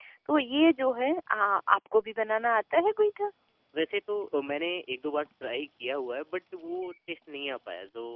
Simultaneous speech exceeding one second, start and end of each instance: none

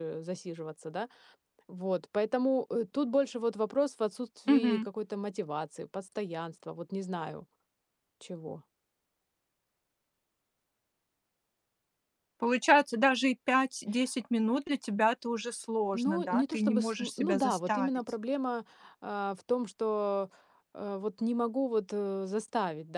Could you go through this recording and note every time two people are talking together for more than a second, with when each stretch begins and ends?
15.9-17.9

